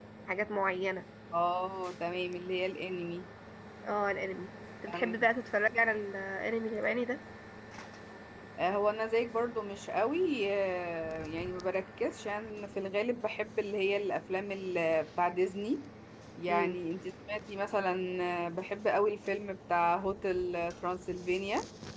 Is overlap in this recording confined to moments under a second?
Yes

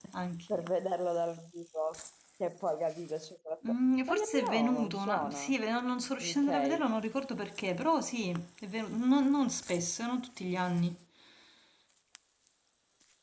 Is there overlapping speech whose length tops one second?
Yes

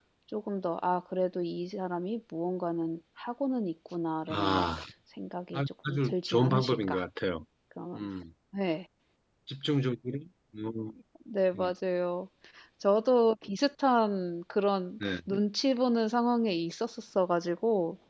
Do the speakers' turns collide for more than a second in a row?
Yes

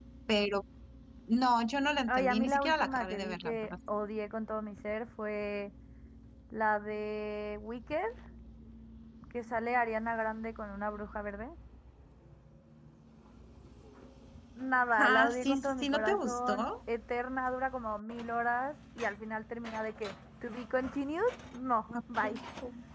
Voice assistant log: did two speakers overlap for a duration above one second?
Yes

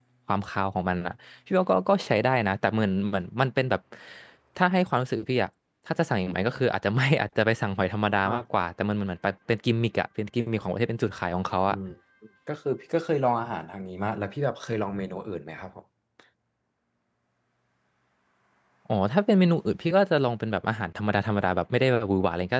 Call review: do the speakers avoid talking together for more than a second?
Yes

